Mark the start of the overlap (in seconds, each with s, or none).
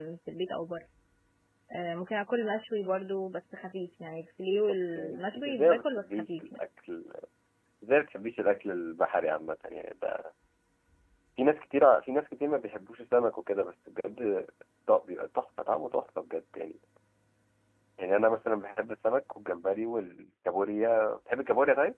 4.7 s